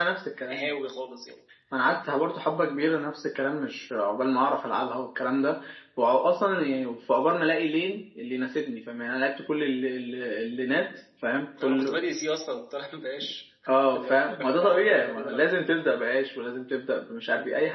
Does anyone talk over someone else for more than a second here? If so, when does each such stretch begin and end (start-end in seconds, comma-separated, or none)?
13.9-15.6